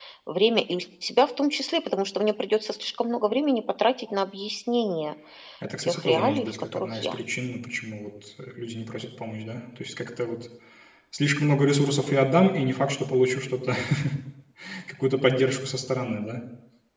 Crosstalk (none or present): present